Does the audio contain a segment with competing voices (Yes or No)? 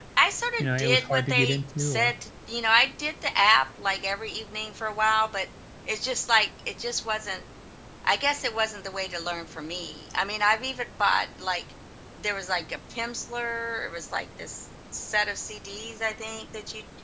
Yes